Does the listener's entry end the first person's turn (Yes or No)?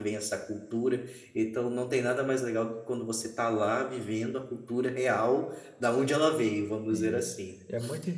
Yes